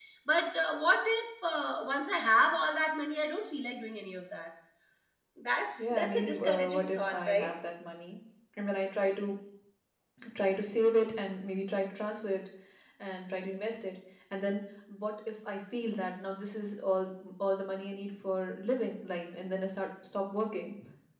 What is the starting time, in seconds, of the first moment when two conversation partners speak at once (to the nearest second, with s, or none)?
6 s